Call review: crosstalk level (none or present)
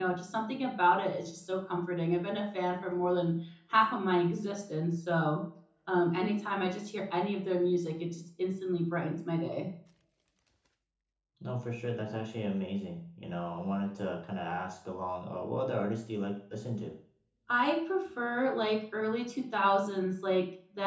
none